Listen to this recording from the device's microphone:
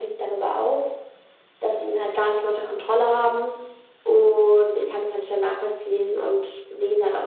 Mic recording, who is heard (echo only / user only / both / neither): echo only